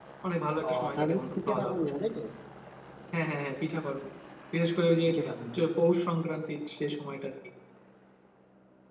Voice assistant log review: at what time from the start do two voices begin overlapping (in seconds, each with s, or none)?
0.6 s